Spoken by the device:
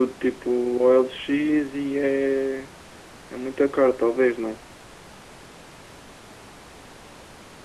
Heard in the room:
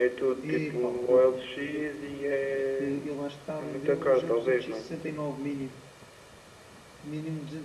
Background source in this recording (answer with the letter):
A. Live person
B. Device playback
A